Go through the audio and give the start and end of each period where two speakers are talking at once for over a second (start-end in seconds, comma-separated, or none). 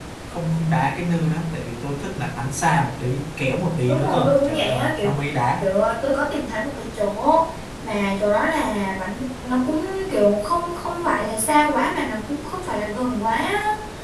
3.9-5.1